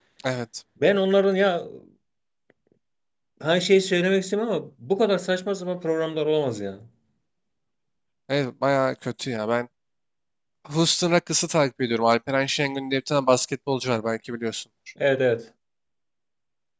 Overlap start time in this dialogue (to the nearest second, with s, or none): none